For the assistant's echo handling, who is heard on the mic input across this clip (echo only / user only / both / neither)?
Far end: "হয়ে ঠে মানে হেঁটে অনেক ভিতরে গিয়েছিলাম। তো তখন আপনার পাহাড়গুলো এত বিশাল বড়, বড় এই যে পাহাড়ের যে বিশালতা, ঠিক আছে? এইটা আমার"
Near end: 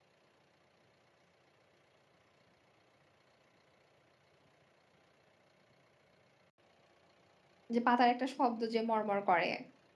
user only